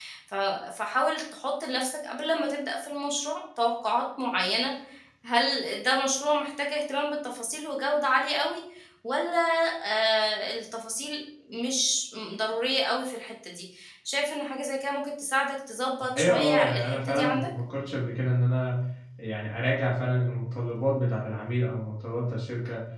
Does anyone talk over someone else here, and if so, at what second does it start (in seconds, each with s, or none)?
16.1 s